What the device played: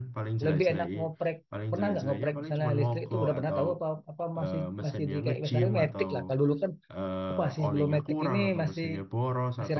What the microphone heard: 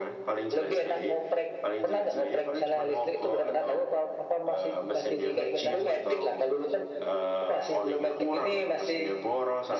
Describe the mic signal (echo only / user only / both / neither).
echo only